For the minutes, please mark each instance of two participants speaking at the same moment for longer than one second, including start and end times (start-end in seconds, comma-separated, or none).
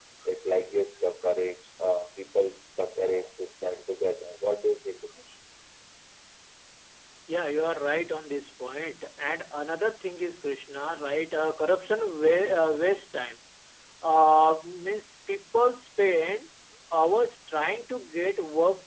none